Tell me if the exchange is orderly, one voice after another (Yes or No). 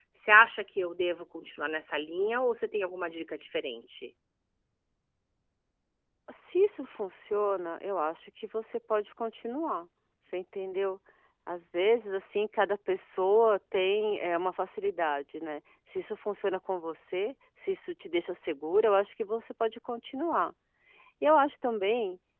Yes